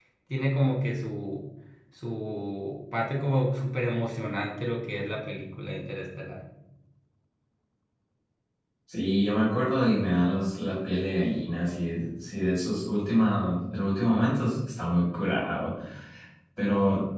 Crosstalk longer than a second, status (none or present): none